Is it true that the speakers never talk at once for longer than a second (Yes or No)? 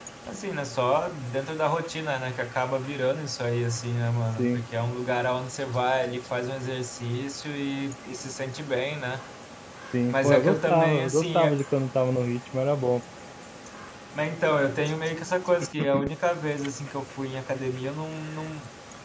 No